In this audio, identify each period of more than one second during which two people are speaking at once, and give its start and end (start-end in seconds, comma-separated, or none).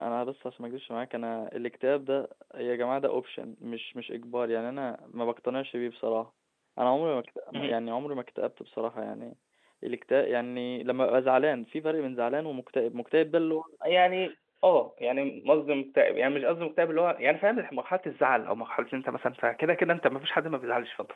none